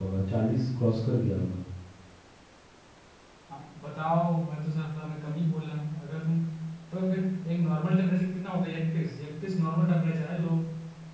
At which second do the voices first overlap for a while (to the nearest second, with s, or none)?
none